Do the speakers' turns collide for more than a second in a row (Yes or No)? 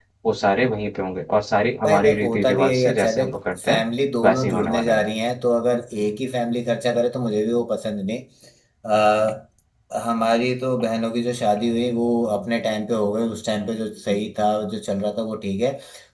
Yes